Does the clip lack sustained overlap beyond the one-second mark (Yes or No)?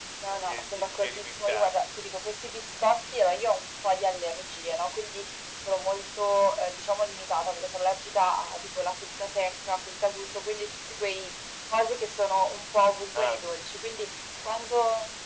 No